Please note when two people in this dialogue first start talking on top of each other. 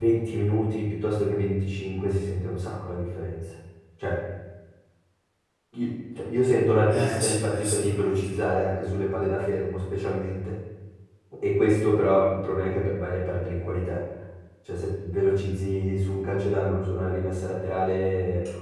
6.9 s

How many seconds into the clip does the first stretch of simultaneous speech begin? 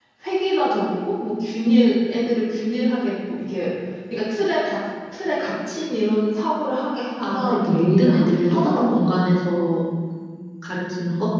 7.2 s

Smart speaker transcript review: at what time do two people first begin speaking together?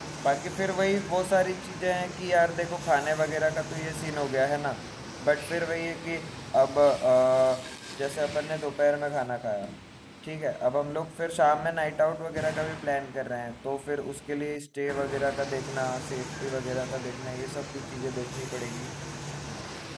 none

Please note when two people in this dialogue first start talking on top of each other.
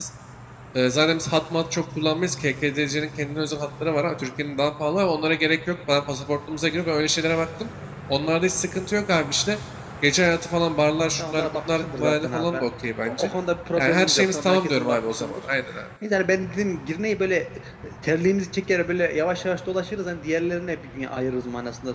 11.2 s

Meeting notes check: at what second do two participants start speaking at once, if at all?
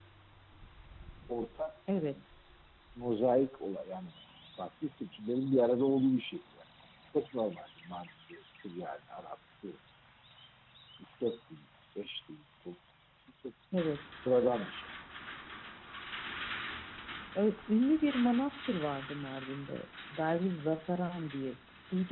none

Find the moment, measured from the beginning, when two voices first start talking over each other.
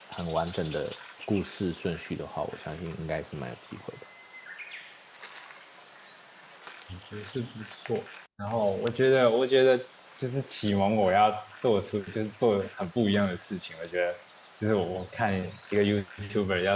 none

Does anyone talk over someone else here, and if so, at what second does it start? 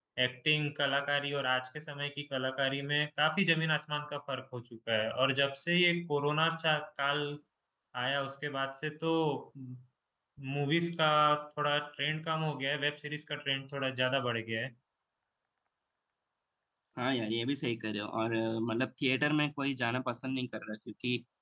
none

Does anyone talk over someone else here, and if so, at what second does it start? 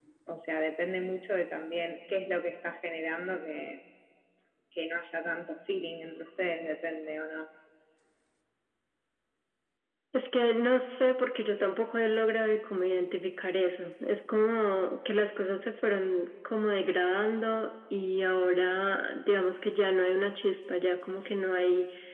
none

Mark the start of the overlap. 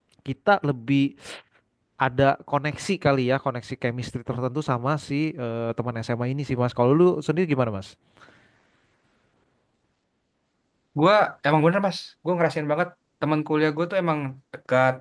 none

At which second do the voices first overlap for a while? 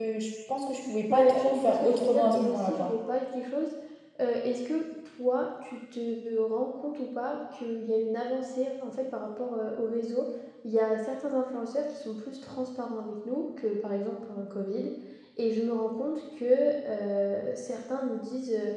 1.1 s

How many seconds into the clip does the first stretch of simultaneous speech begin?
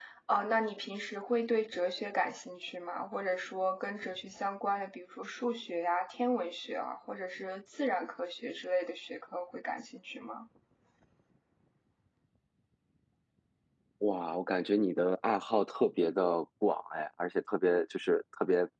none

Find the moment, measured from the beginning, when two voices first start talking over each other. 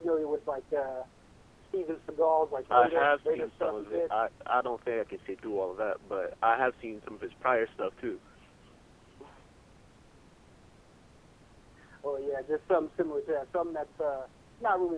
2.7 s

